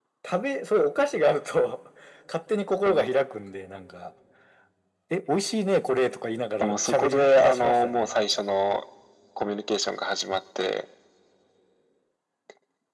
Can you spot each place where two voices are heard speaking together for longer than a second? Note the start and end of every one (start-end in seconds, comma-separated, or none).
6.6-8.2